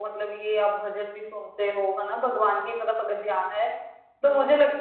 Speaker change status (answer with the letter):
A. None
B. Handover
A